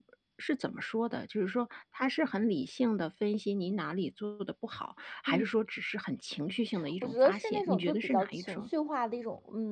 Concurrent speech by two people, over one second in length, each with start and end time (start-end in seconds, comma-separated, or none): 7.0-8.7